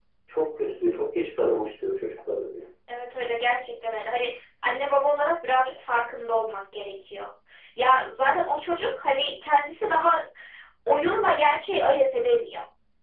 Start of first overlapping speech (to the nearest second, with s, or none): none